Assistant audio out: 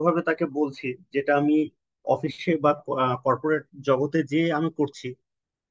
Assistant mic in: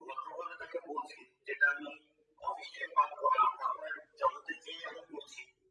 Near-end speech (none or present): none